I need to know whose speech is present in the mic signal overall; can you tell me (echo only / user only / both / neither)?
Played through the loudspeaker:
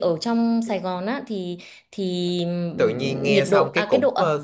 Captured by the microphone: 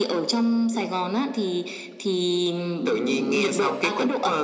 echo only